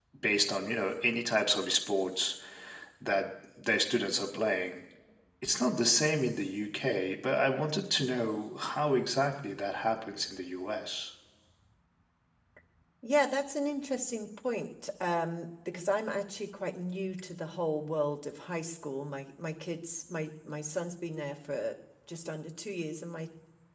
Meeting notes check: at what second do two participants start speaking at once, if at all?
none

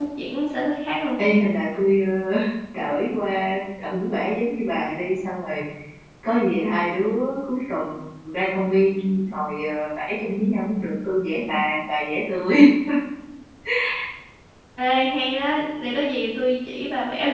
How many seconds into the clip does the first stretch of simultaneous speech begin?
none

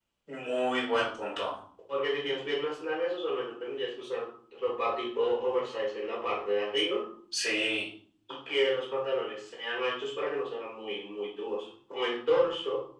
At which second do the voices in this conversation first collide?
none

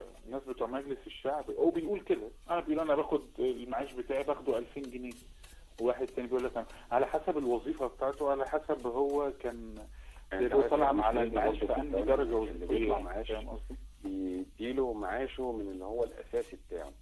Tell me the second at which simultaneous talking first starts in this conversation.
10.3 s

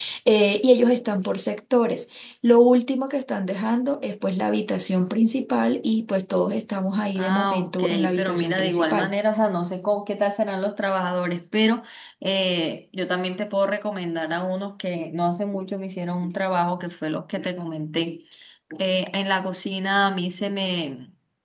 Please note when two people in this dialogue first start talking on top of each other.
7.2 s

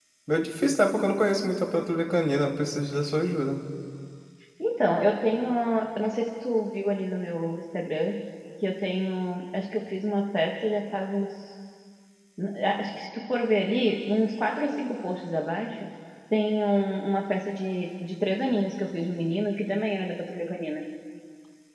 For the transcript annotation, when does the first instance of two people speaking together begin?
none

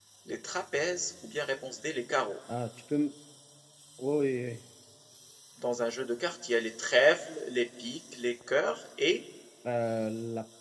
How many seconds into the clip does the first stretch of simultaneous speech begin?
none

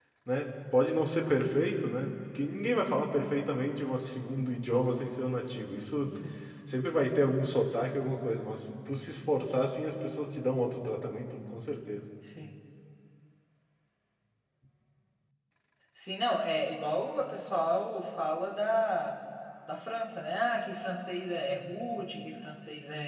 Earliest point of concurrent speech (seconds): none

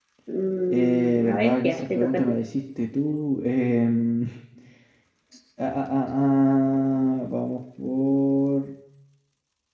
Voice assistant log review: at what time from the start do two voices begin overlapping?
0.7 s

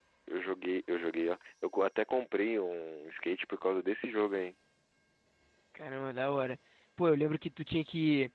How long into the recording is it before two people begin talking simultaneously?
none

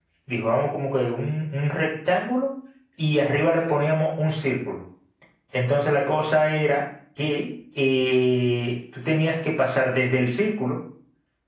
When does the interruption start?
none

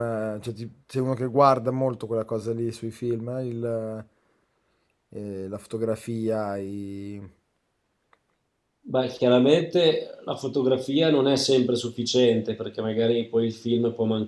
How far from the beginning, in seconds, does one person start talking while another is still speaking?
none

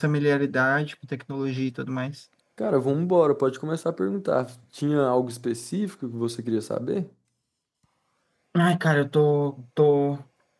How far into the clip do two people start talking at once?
none

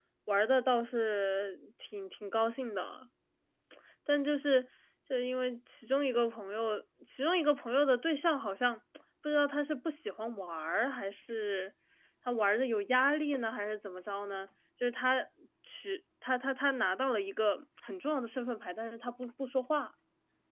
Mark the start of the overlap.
none

